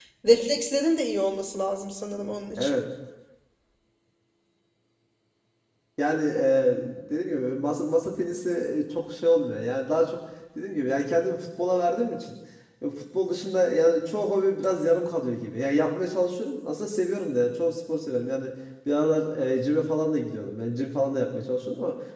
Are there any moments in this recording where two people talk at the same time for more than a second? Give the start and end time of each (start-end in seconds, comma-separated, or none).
none